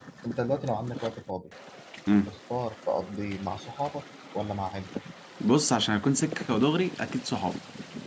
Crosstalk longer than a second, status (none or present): none